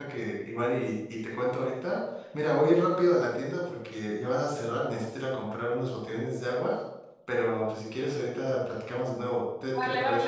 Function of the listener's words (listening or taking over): taking over